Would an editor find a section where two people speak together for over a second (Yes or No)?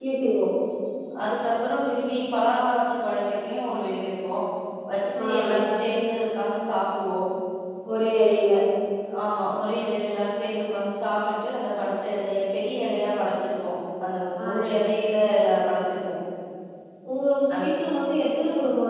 No